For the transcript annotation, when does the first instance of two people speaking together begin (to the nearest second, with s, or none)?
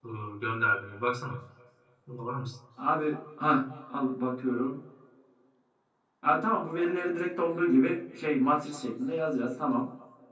none